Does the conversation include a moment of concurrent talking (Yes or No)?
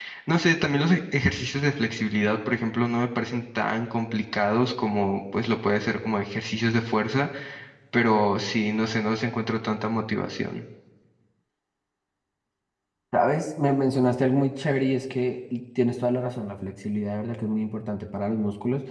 No